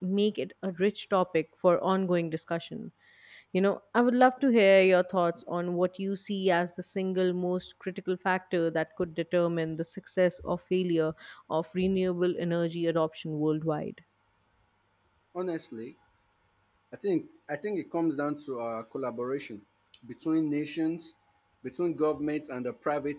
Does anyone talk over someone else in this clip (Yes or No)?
No